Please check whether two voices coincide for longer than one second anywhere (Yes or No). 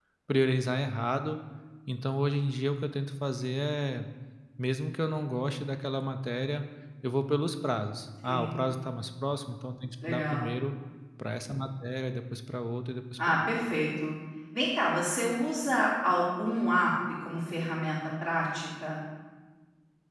No